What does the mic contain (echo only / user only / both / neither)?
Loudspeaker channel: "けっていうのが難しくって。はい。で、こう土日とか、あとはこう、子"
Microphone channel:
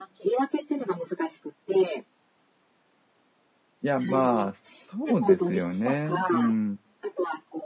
both